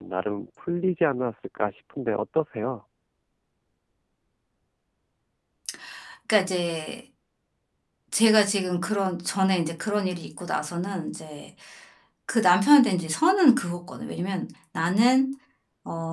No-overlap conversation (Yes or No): Yes